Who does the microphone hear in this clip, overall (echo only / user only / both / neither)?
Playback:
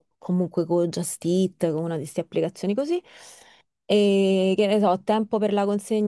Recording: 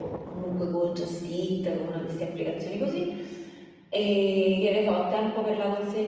echo only